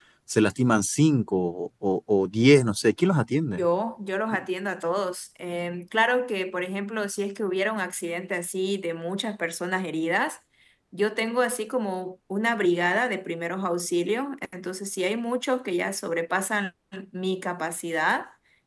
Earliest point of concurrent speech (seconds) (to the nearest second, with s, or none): none